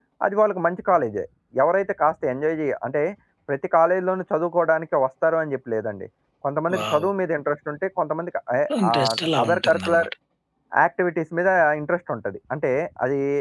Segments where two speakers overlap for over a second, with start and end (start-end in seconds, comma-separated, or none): 8.8-10.1